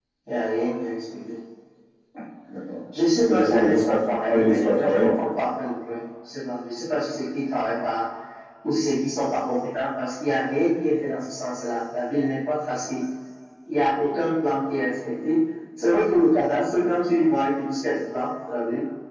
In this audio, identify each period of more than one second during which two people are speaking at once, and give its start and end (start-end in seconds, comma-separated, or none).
3.3-5.3